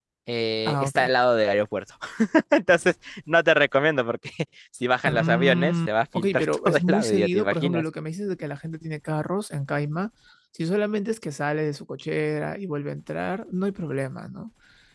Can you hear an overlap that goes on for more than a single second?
Yes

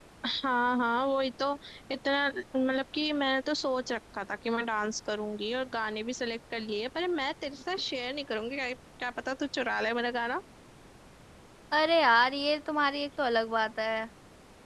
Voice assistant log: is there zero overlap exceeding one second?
Yes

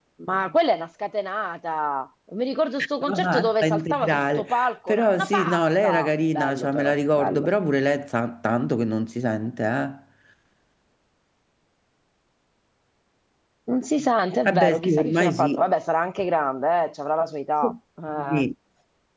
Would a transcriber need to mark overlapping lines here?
Yes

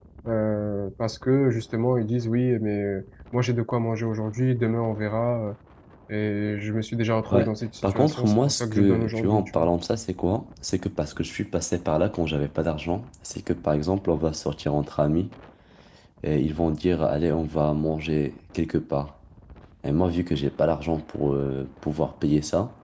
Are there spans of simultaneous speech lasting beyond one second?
Yes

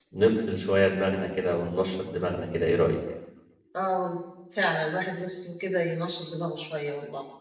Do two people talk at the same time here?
No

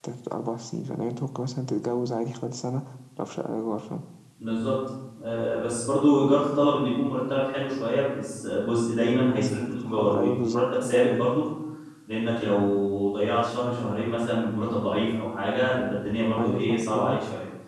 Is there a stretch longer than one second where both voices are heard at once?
Yes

